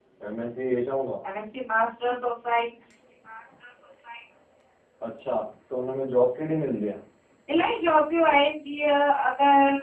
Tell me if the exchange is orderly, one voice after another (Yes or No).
Yes